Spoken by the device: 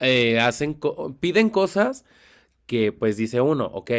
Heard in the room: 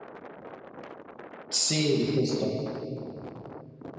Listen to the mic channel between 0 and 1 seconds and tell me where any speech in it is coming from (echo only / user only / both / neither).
neither